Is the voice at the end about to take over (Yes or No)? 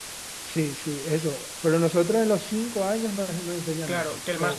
Yes